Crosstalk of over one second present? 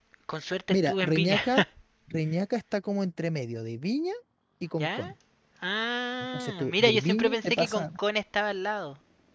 Yes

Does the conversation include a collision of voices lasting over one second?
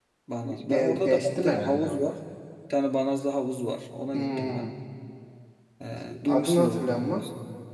Yes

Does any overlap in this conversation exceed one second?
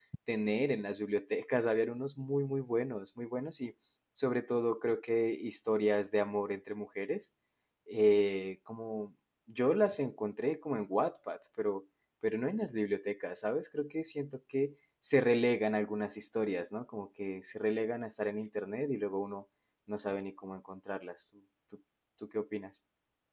No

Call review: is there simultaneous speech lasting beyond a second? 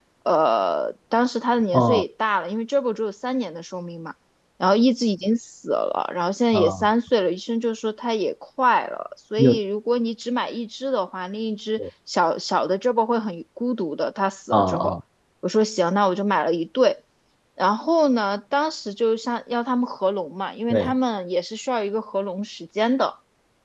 No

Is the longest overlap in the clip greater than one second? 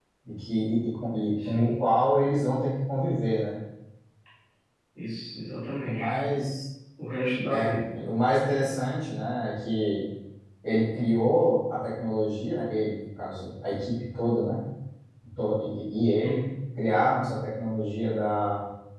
No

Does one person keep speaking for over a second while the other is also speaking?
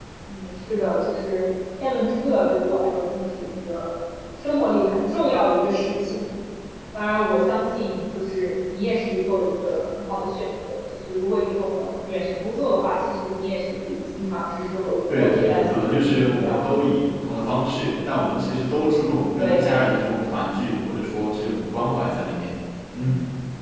Yes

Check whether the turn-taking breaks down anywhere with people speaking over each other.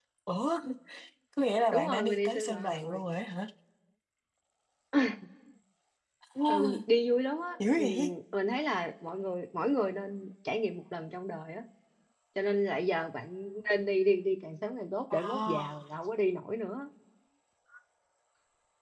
Yes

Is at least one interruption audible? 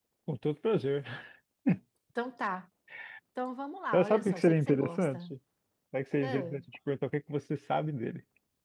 Yes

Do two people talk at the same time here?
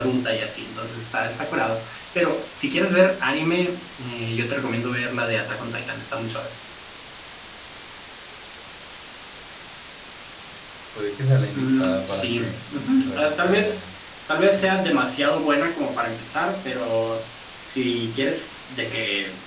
Yes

